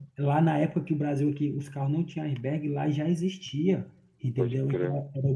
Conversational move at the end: listening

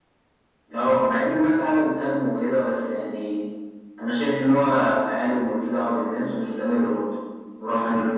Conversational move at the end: listening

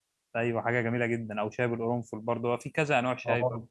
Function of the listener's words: taking over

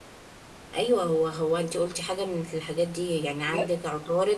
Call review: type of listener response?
listening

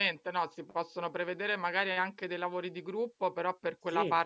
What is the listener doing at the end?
listening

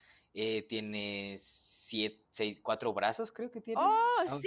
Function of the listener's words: taking over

